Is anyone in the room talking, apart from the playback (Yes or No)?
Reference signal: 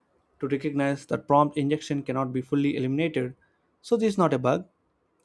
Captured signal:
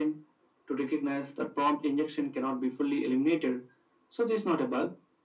No